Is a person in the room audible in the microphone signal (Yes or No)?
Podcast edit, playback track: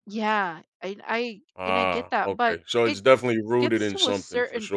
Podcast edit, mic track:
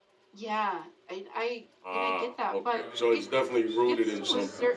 Yes